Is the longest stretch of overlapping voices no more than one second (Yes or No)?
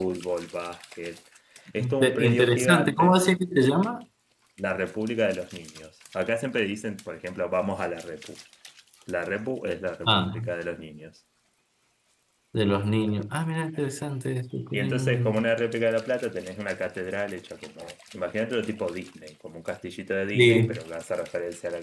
No